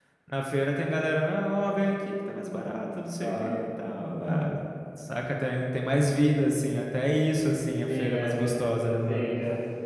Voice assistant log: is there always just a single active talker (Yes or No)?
No